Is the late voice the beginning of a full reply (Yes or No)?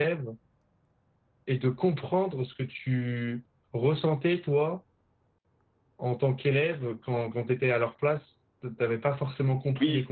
No